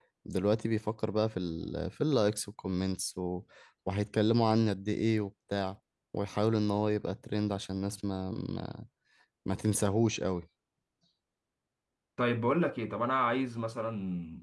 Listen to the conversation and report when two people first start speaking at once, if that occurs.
none

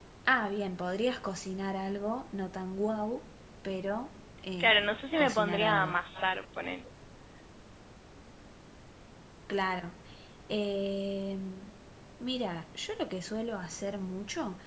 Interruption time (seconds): 4.6 s

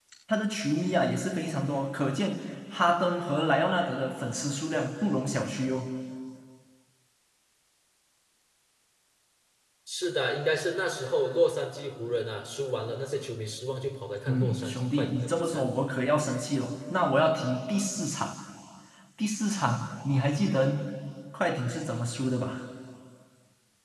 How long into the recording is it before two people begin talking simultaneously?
14.3 s

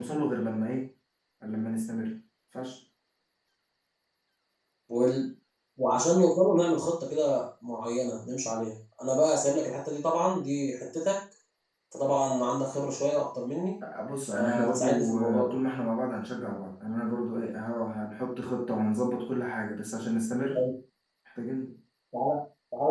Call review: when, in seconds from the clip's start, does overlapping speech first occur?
14.3 s

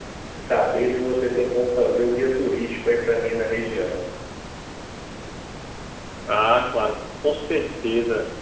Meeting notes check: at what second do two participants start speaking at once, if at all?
none

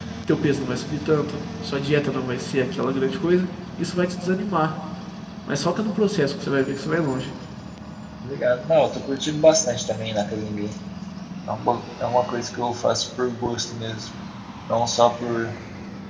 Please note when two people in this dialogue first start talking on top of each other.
none

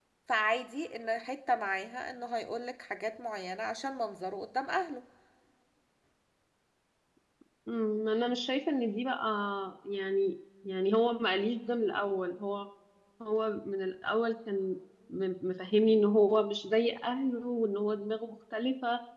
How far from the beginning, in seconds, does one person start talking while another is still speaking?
none

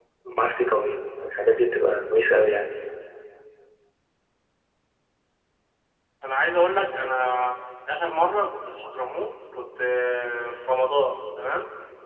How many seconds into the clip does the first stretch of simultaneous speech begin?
none

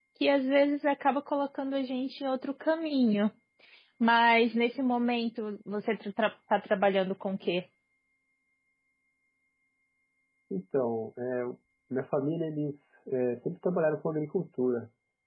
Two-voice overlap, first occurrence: none

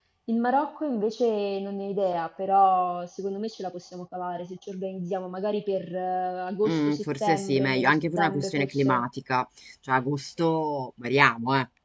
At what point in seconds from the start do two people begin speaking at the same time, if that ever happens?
6.7 s

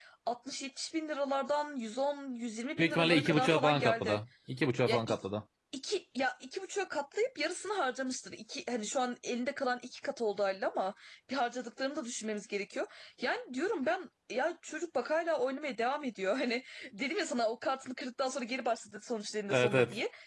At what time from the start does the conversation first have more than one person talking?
2.8 s

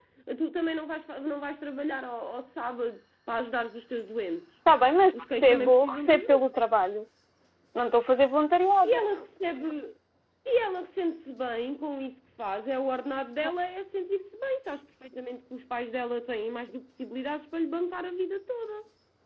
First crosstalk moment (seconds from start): 5.1 s

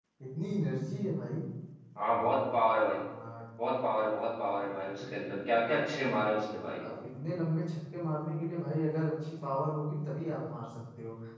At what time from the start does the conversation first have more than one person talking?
none

